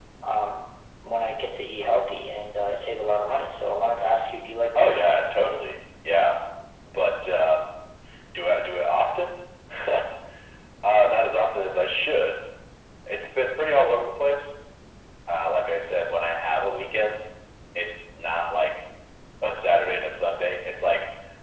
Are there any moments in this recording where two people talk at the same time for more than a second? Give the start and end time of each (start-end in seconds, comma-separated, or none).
none